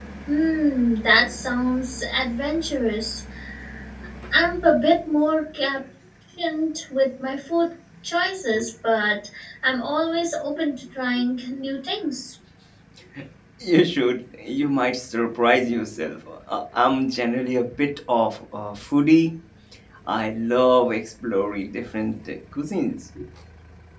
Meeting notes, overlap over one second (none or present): none